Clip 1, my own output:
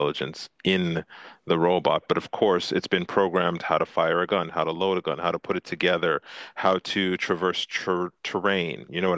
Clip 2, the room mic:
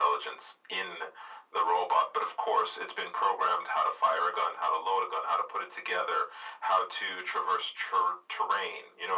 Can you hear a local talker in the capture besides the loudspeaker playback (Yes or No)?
No